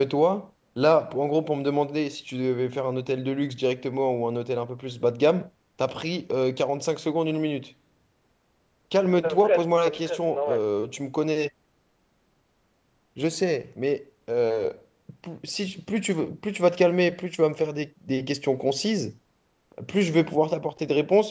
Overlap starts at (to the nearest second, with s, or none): 9 s